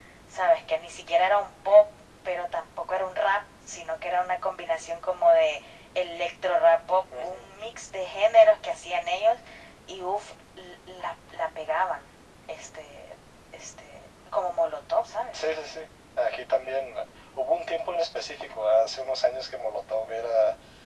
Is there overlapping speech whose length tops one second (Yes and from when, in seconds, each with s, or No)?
No